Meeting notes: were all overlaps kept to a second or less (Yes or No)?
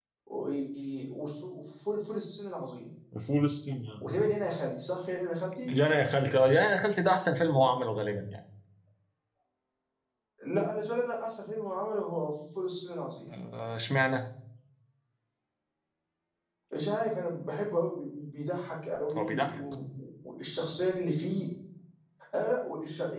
Yes